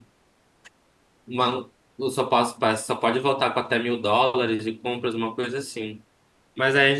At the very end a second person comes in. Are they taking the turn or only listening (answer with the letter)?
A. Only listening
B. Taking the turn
A